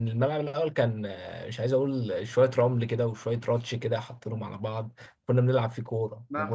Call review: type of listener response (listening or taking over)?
taking over